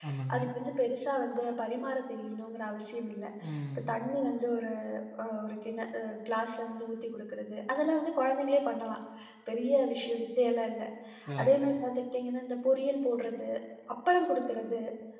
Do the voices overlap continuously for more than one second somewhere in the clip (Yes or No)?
No